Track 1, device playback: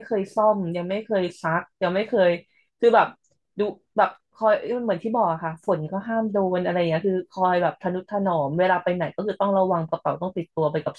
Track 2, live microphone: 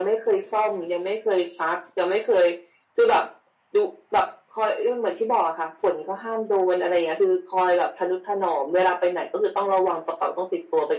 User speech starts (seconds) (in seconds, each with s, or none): none